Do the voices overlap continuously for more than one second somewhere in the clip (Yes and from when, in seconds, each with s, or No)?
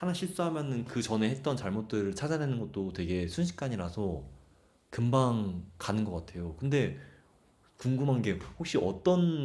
No